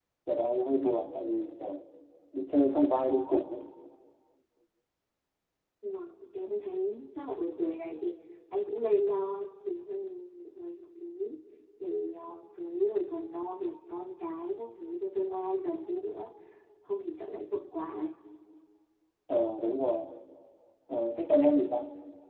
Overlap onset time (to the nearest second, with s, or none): none